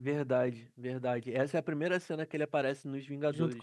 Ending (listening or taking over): taking over